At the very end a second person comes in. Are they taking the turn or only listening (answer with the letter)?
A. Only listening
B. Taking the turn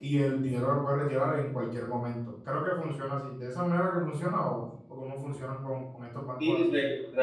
B